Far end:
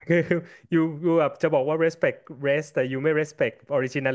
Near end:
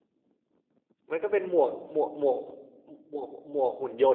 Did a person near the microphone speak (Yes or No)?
Yes